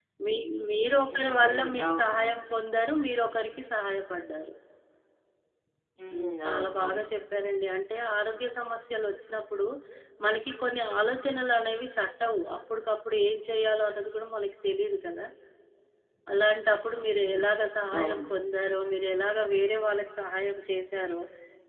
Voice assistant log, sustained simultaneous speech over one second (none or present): present